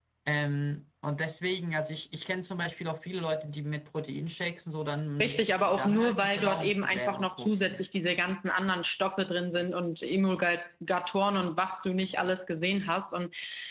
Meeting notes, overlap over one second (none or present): present